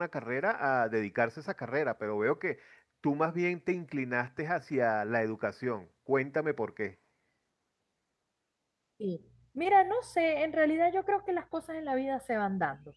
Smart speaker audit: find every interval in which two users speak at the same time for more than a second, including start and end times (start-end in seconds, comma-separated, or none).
none